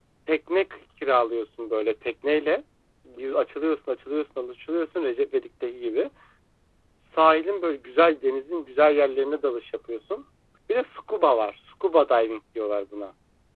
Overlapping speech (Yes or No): No